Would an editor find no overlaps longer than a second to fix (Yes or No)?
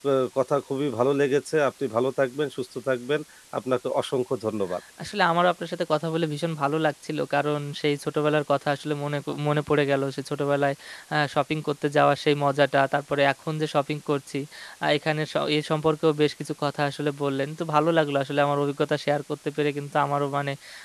Yes